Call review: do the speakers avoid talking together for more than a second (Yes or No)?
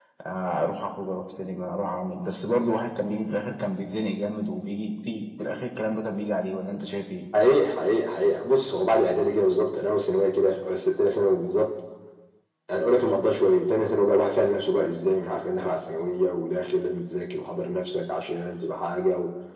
Yes